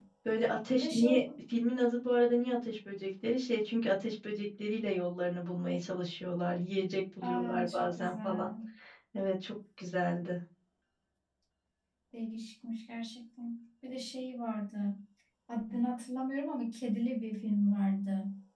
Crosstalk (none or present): present